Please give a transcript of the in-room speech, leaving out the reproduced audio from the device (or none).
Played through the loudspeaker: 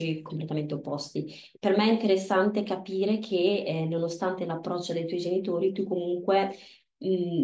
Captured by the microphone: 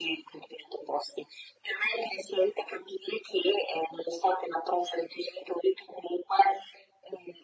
none